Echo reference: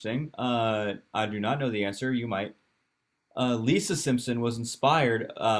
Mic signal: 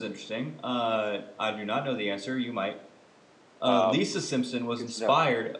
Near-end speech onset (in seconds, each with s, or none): 3.6 s